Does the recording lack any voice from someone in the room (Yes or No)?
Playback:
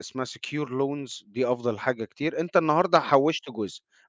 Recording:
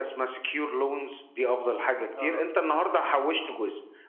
No